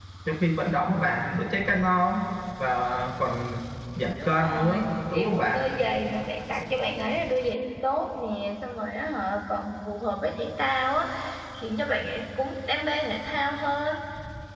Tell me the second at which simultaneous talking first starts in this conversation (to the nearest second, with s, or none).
4 s